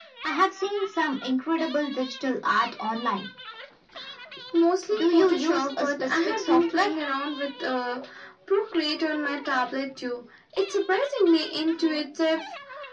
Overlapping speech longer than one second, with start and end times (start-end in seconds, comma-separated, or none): 4.9-6.9